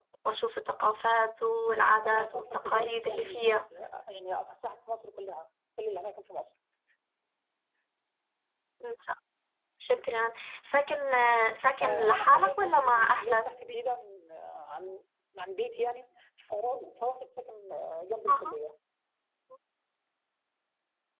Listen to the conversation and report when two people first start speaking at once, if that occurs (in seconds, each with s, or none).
2.0 s